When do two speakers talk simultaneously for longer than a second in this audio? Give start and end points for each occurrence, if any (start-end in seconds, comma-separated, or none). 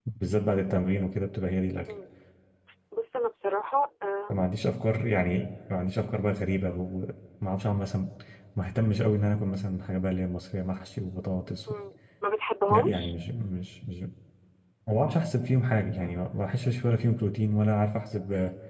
none